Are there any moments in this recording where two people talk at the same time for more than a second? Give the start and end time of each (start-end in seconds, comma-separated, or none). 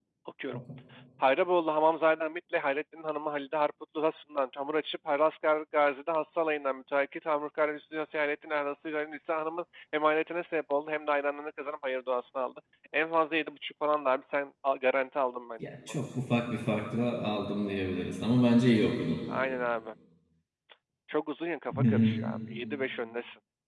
none